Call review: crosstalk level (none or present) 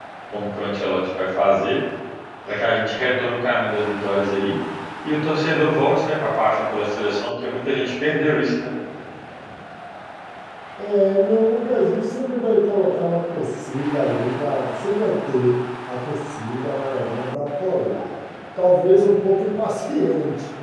none